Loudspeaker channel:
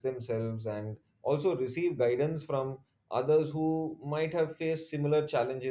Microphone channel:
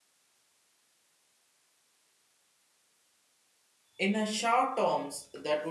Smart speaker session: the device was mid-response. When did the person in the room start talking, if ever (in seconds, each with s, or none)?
4.0 s